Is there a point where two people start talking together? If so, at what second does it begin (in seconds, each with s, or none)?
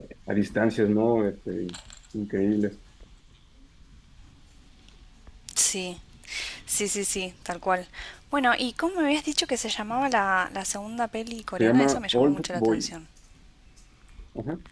11.6 s